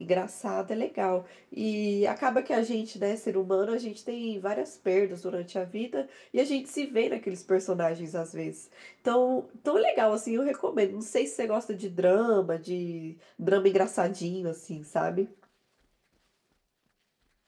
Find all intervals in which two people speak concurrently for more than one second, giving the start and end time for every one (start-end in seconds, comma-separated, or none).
none